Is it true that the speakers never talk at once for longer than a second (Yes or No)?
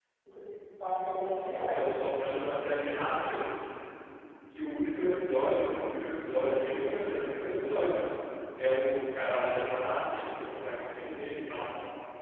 Yes